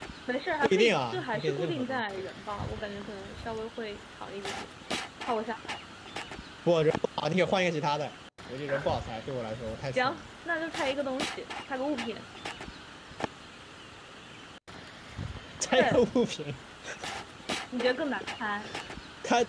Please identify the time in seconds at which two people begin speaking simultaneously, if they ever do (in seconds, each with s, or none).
0.6 s